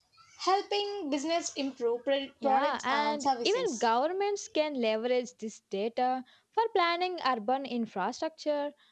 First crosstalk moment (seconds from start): 2.4 s

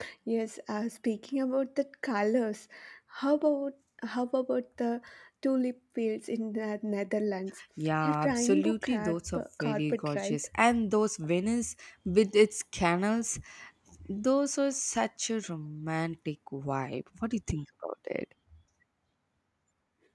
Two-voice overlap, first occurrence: 8.0 s

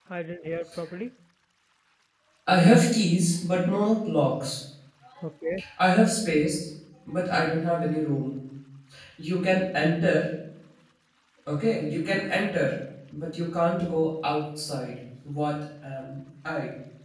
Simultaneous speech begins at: none

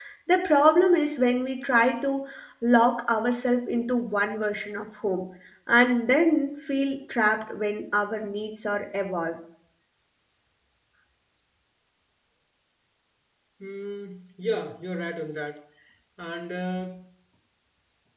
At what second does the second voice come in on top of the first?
none

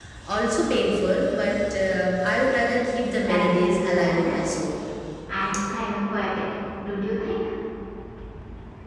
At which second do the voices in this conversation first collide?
3.2 s

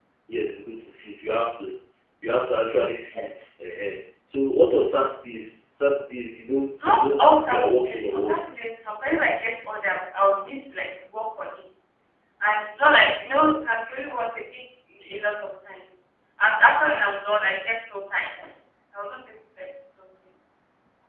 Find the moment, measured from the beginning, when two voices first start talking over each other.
6.8 s

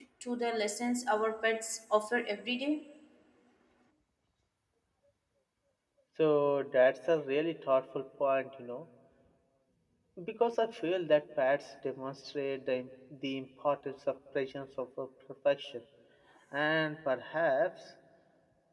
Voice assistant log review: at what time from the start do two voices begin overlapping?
none

